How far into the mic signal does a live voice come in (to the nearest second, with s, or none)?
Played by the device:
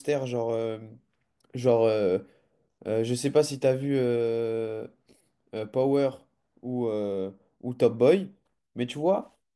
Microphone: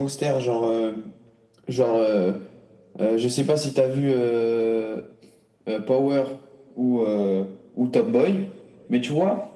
none